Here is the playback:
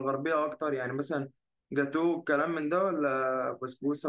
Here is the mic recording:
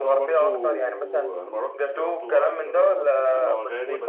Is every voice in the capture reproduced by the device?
No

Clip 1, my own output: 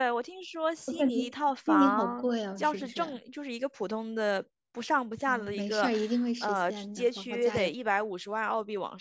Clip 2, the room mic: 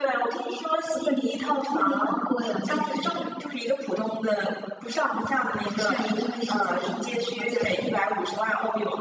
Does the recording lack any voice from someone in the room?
Yes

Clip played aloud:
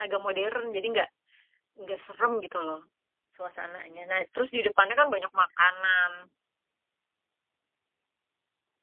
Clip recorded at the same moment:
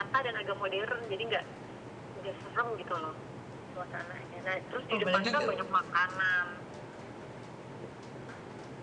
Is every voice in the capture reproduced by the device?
No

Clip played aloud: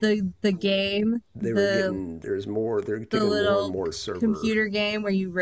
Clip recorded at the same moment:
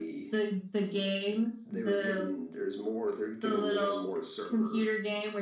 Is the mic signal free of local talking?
Yes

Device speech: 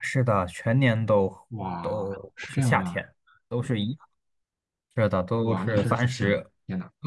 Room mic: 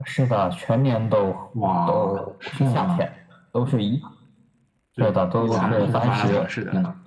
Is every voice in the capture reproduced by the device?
No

